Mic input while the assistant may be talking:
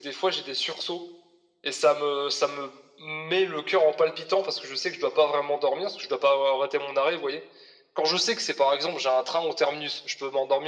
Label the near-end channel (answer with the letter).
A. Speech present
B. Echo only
B